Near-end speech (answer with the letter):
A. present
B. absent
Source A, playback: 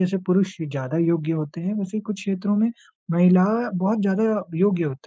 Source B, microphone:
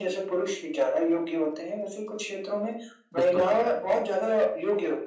A